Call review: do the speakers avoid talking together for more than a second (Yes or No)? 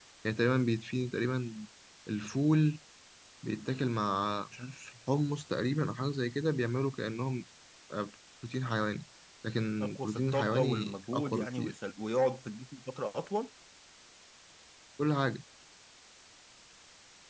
No